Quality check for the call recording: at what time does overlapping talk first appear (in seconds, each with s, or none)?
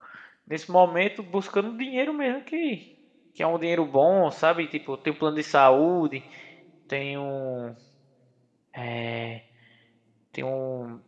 none